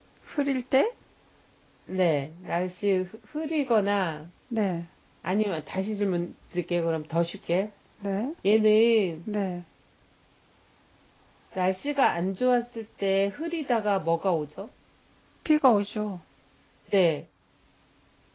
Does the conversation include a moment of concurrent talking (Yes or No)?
No